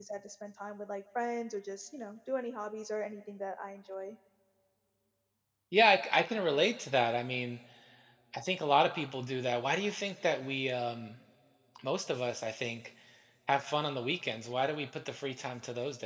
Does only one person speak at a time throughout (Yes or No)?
Yes